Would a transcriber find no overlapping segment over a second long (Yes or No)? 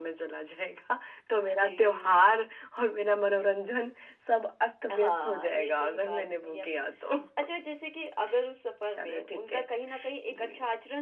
No